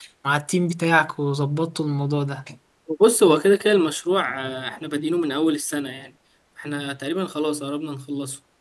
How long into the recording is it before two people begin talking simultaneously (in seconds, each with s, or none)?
none